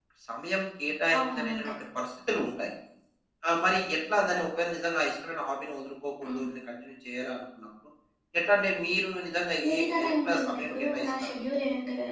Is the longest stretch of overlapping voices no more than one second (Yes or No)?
No